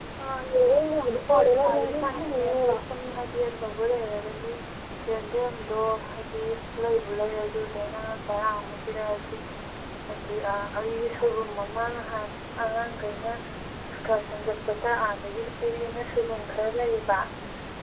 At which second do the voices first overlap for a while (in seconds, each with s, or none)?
1.3 s